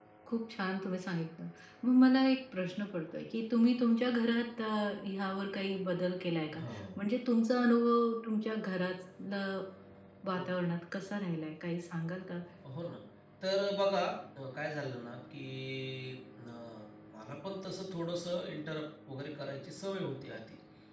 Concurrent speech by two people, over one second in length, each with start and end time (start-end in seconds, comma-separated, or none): none